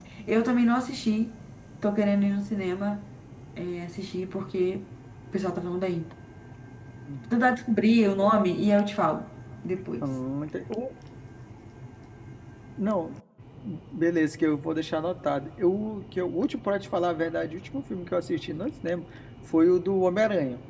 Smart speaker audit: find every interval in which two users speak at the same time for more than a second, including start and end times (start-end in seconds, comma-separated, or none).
none